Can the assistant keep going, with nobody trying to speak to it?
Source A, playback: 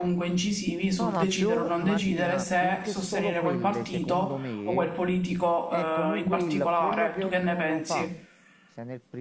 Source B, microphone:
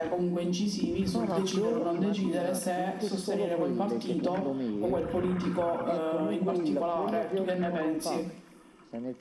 Yes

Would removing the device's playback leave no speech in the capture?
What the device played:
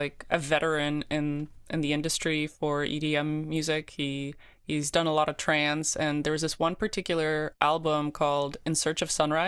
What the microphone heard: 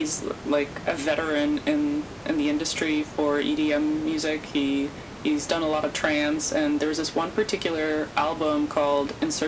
Yes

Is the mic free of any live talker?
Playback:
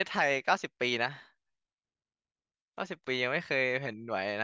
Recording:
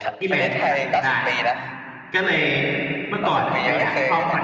No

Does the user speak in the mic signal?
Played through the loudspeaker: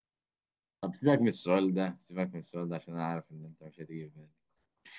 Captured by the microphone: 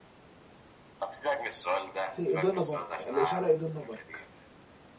Yes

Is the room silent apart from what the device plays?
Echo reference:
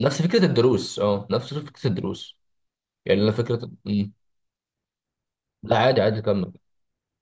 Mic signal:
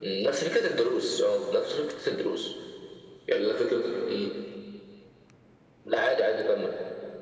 Yes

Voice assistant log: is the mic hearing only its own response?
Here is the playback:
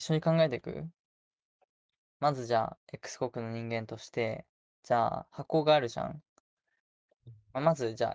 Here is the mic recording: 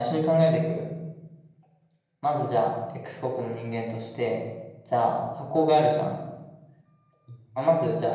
Yes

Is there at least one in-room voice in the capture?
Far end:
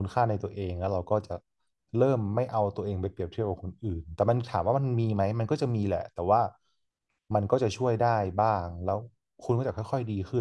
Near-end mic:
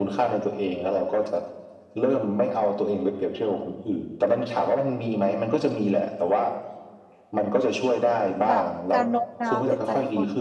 Yes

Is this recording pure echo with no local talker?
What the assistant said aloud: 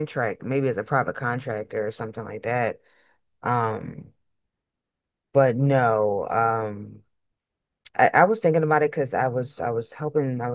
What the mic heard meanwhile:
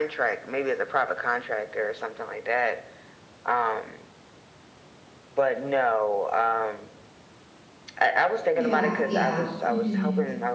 No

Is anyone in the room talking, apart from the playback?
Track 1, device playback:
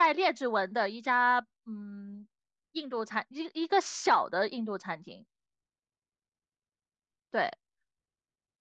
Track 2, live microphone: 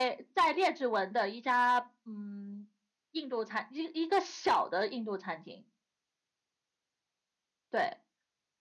No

